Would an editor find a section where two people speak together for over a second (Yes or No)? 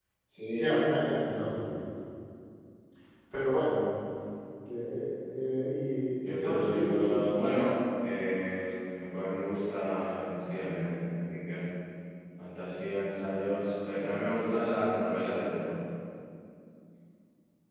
Yes